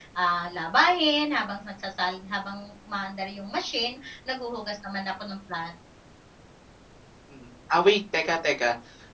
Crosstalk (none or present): none